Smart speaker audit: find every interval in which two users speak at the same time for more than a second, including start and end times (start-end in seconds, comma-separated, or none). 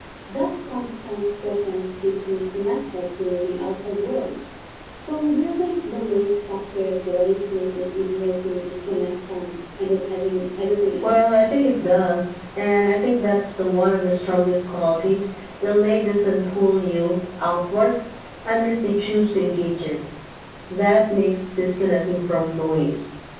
none